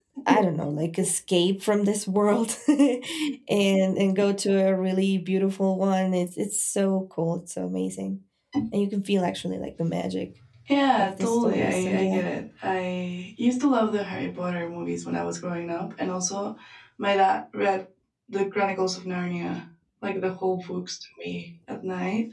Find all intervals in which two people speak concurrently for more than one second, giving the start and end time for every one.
10.9-12.2

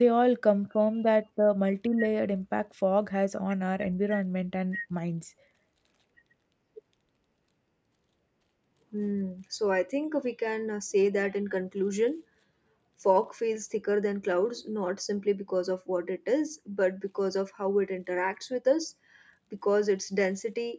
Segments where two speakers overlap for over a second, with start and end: none

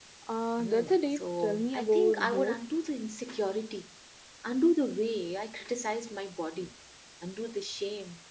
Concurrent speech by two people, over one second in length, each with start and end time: 0.6-2.6

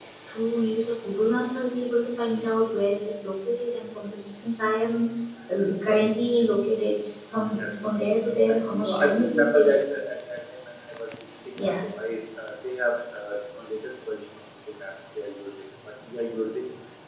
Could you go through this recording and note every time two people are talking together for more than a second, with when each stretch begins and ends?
8.5-9.8

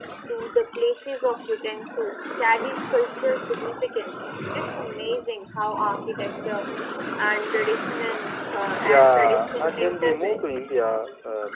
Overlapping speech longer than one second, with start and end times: 8.8-10.5

